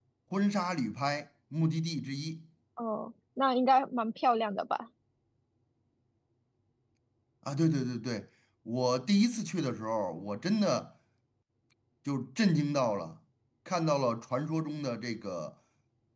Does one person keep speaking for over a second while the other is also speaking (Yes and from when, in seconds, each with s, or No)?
No